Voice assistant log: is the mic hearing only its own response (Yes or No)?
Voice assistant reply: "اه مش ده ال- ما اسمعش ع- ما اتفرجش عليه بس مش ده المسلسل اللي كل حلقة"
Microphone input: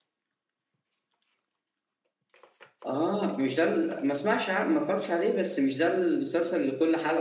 Yes